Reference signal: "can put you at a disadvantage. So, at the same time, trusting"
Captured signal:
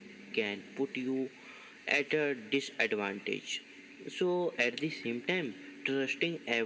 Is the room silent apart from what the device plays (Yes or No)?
Yes